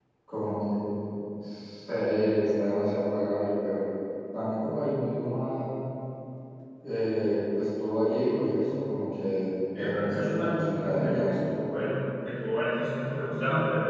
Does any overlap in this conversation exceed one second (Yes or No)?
Yes